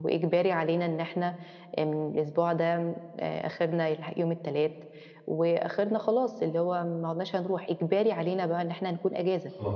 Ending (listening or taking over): listening